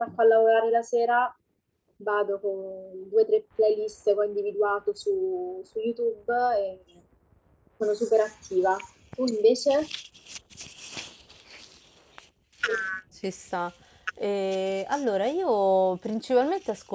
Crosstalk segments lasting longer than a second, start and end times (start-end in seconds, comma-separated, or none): none